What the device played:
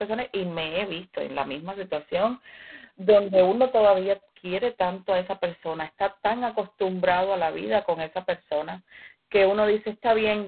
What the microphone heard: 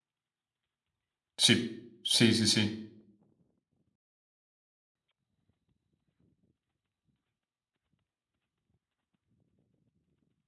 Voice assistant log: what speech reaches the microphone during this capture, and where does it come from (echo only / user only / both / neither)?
user only